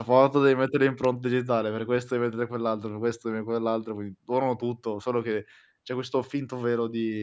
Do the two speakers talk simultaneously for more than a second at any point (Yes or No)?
No